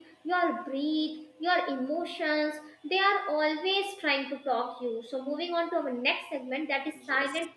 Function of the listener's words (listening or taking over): listening